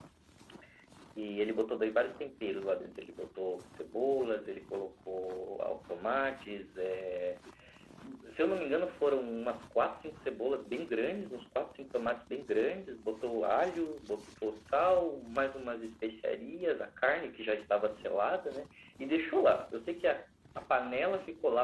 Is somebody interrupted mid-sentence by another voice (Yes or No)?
No